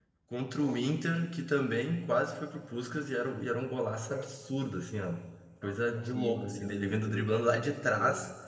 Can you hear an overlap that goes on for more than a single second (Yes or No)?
Yes